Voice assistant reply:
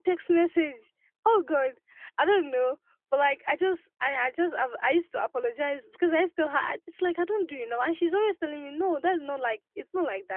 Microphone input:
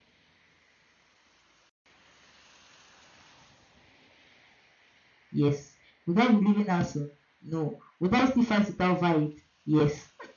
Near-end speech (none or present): present